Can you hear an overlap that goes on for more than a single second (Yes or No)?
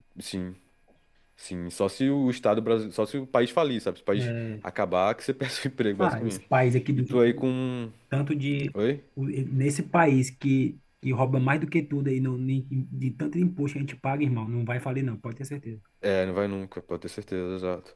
No